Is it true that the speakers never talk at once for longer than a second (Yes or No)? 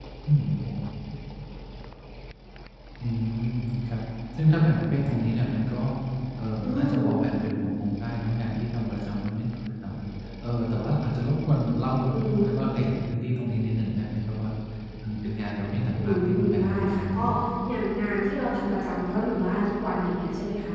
No